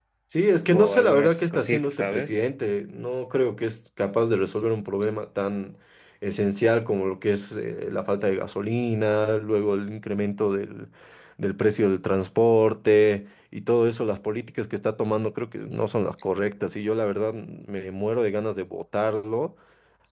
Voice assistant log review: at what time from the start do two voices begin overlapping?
1 s

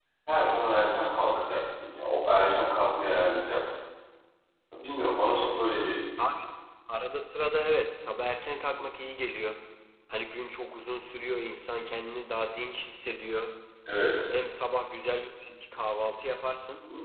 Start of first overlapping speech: none

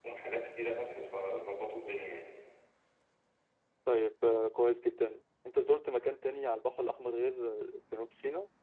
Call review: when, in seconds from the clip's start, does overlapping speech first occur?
none

